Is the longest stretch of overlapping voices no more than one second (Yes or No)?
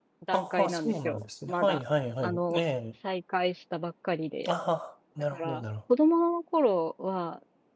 No